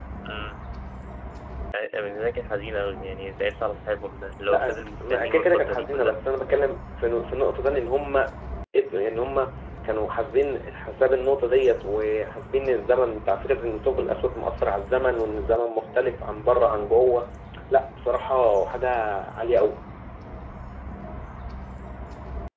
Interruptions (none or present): present